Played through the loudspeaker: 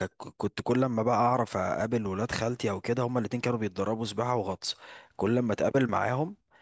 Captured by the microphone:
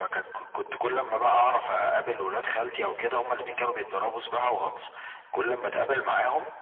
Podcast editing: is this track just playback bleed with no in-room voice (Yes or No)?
Yes